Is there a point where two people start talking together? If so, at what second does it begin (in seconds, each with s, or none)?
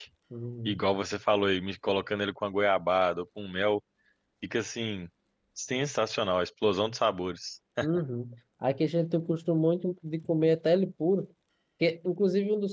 none